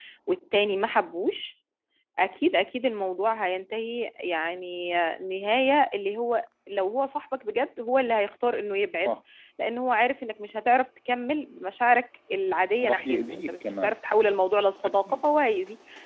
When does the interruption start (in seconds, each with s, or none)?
12.8 s